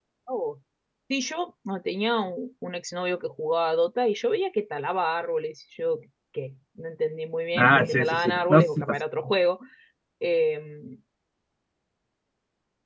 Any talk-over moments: Yes, from 7.6 s

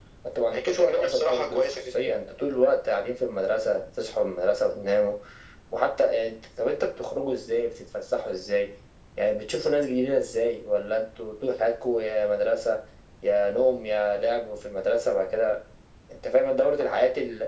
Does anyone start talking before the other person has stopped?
Yes, from 0.5 s

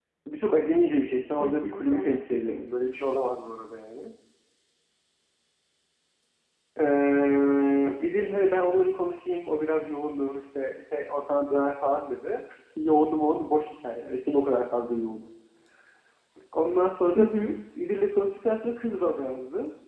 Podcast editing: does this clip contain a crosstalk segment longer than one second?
Yes, from 1.4 s

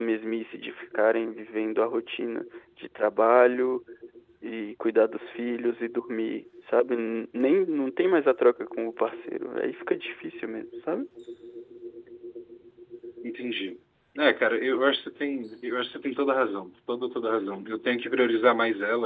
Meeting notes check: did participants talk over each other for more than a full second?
No

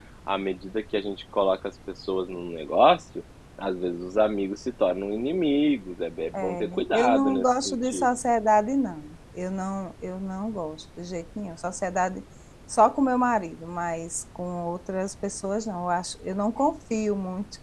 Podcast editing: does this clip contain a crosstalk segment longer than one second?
Yes, from 6.3 s

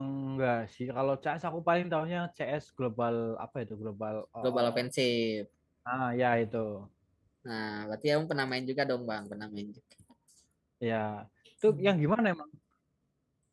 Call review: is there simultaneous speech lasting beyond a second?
No

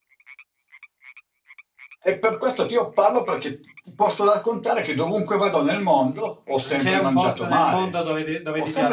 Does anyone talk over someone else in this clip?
Yes, from 6.6 s

